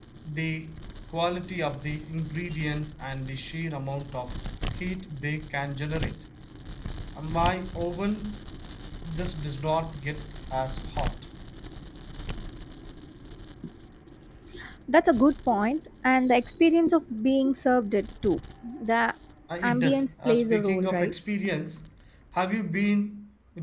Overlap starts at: 19.6 s

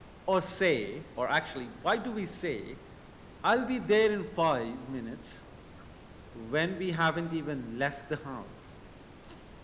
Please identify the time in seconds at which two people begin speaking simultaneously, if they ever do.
none

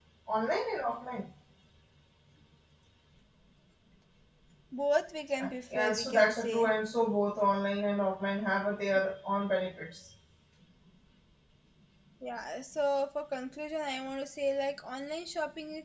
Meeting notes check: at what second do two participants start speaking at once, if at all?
5.4 s

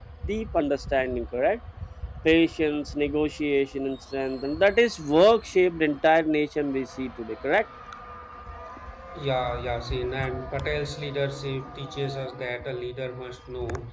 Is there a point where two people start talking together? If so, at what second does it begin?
none

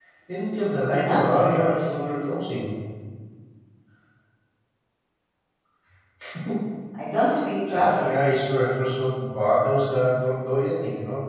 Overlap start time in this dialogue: 0.9 s

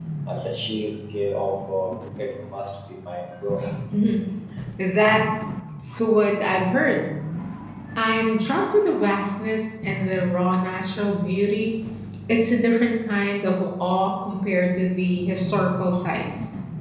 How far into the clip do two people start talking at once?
none

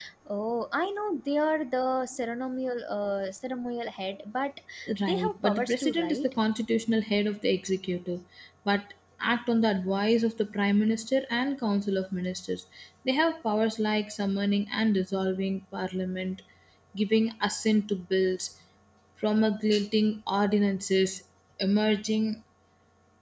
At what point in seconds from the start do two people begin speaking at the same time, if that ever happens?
5.0 s

